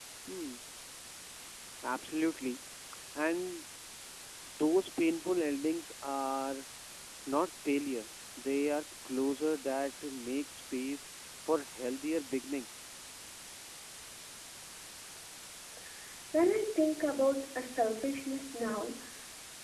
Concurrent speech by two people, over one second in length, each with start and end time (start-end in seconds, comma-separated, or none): none